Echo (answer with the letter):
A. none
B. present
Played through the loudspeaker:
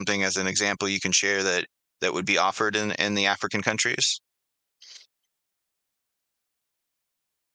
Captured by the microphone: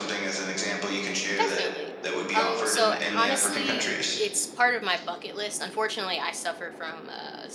B